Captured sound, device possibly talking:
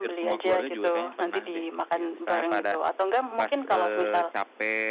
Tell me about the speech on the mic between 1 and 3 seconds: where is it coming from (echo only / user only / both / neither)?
both